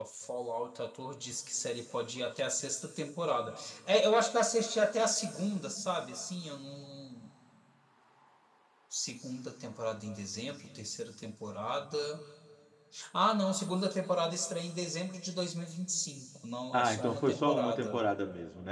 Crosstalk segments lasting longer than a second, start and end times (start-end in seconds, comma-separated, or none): 16.7-18.0